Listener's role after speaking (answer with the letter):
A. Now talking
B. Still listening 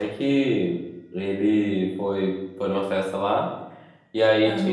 B